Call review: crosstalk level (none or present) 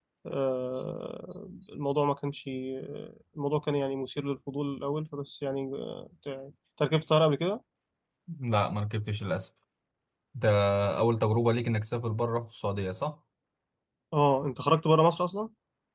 none